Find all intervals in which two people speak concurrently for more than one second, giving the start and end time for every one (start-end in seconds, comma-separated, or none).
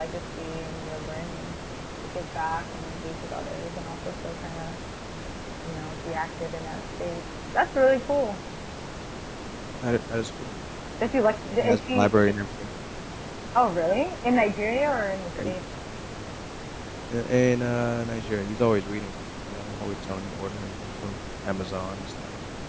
11.0-12.3